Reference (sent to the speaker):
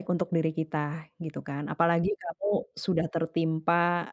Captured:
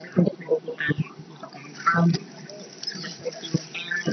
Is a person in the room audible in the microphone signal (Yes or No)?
No